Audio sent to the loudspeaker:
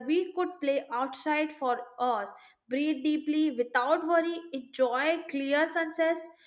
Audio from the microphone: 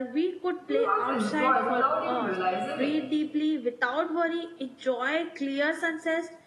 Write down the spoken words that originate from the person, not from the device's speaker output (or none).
we once enjoyed without even realizing it.